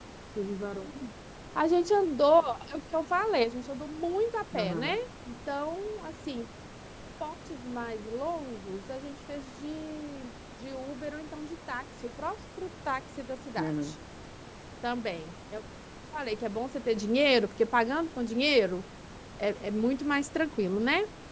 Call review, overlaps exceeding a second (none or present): none